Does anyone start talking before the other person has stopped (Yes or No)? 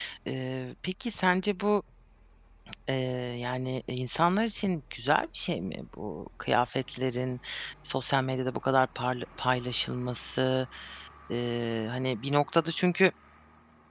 No